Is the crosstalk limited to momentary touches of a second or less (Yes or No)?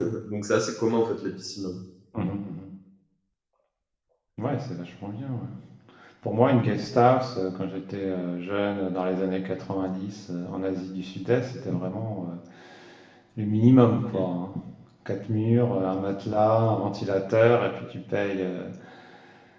Yes